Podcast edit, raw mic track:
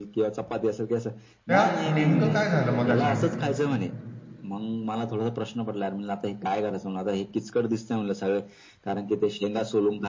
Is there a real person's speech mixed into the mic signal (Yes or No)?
Yes